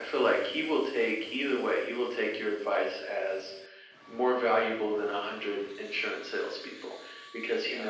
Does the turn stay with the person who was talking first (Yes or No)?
Yes